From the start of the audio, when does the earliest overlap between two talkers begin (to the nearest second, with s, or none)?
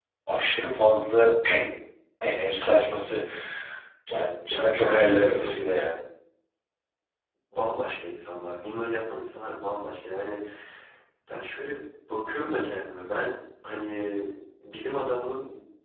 4 s